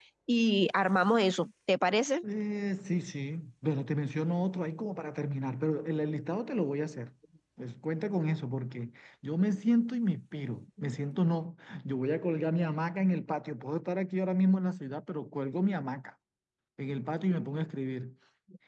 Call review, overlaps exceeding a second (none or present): none